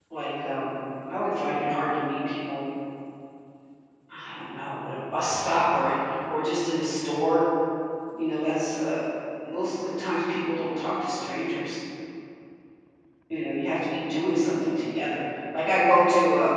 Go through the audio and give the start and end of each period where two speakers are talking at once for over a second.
none

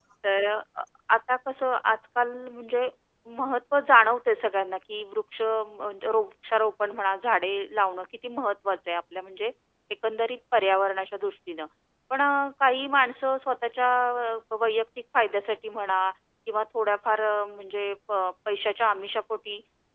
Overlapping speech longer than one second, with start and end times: none

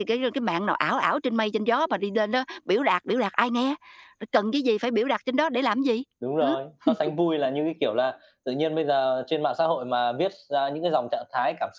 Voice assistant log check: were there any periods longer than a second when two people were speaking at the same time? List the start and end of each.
none

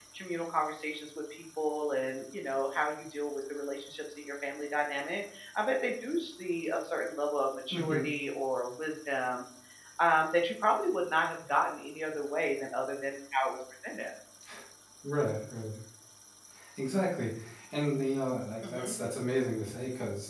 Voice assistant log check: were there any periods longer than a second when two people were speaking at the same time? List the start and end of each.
none

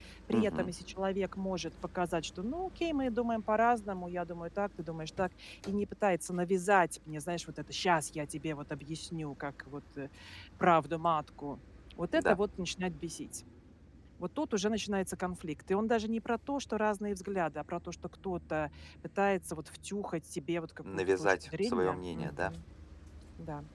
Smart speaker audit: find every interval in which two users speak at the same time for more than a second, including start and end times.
20.8-22.5

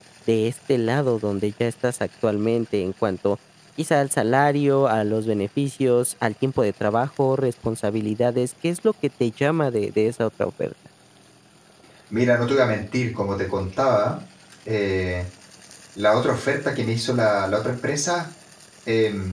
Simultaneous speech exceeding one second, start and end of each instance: none

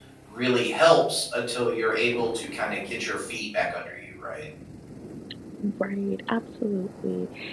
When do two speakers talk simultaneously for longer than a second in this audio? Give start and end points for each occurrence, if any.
none

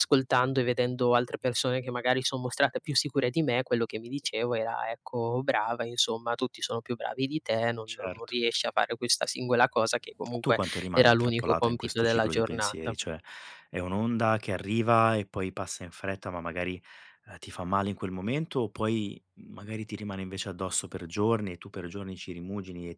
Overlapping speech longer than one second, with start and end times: 10.4-12.9

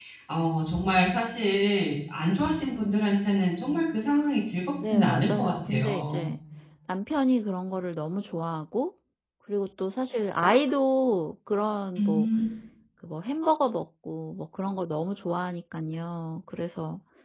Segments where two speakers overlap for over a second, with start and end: 4.8-6.3

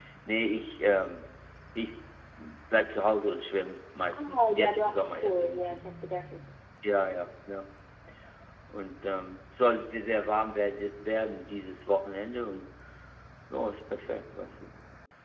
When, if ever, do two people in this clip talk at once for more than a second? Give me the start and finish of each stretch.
4.2-5.8

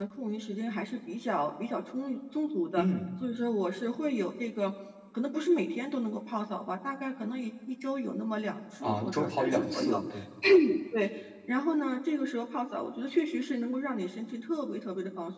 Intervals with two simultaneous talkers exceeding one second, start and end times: 8.8-10.0

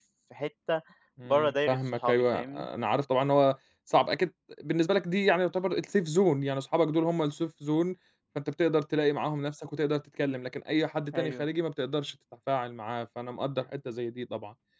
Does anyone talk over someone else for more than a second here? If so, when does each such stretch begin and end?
1.3-2.7

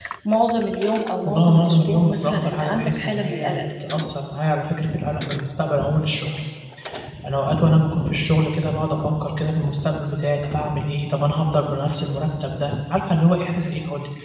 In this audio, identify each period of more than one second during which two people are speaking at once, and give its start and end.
1.2-3.6

